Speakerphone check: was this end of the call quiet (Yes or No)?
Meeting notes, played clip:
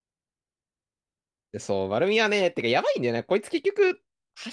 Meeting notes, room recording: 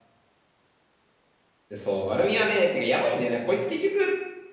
Yes